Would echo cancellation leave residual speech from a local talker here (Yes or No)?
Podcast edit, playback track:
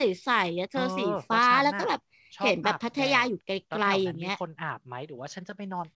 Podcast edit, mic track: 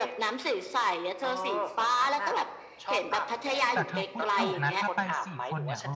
Yes